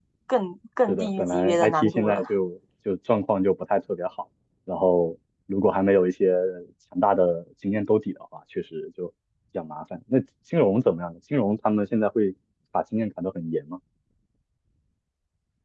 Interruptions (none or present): present